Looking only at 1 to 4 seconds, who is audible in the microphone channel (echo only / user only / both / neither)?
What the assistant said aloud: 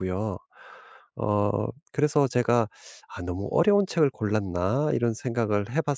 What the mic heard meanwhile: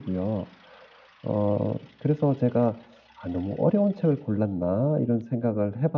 echo only